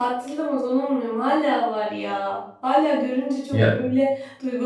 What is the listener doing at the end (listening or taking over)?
listening